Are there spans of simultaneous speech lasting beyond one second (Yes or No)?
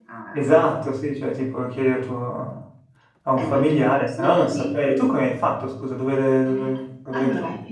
Yes